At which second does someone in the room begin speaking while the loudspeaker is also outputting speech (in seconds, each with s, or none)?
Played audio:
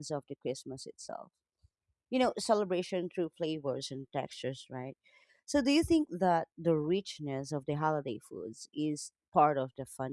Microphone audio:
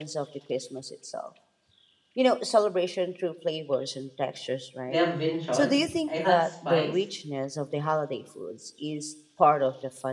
4.8 s